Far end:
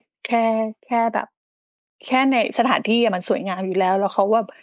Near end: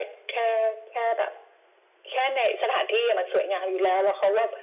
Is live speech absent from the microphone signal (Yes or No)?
No